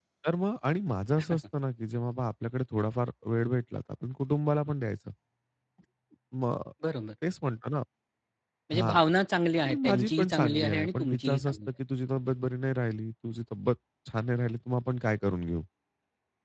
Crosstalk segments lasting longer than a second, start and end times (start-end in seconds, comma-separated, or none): 9.6-11.7